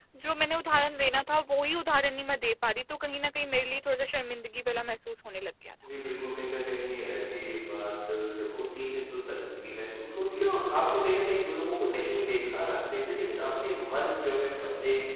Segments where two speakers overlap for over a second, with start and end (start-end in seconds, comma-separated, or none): none